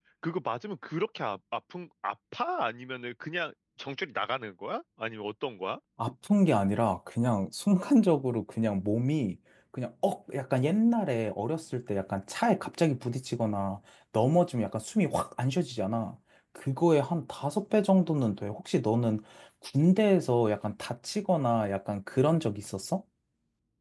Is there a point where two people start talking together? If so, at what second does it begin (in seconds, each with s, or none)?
none